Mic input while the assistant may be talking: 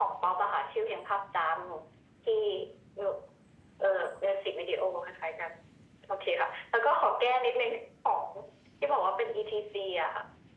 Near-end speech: none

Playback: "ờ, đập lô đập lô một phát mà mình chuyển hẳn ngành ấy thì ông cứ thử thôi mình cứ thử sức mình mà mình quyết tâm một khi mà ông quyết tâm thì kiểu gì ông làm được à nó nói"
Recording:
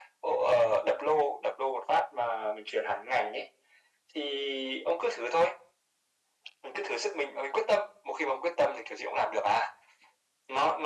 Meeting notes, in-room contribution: none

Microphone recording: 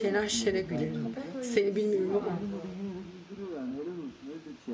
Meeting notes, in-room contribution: present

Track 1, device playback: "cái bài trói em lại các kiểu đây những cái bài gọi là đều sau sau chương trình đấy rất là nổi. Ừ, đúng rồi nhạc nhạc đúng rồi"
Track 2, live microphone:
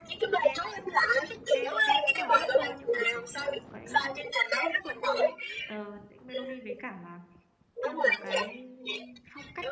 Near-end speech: present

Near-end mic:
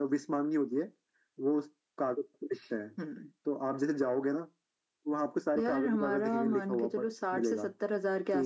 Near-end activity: none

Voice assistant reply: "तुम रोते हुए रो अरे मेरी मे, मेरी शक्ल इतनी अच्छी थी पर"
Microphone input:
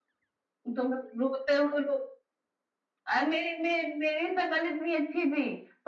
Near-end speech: none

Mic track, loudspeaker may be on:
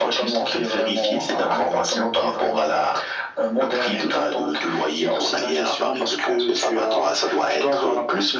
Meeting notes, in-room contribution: none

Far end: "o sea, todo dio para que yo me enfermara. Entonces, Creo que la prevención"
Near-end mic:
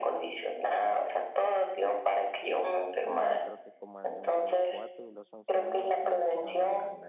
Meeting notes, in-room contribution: present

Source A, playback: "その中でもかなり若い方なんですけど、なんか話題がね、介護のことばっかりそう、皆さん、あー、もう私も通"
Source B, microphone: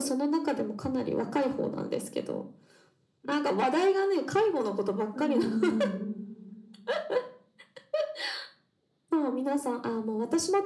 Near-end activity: present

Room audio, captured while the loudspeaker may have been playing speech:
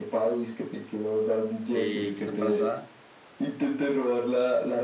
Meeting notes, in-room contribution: present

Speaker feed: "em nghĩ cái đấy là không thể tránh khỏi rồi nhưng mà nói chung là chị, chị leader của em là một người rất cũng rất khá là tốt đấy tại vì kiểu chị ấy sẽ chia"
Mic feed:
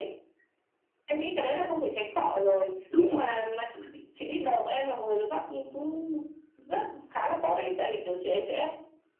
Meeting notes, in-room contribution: present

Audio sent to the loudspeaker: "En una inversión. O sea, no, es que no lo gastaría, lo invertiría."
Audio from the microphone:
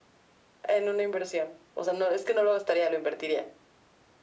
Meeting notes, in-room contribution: none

